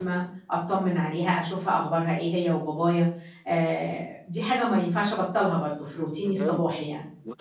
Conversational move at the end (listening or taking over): taking over